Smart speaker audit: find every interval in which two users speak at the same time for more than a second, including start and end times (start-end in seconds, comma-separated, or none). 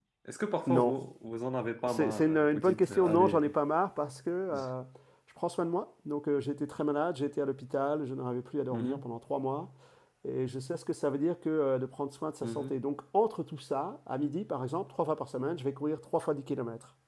1.9-3.5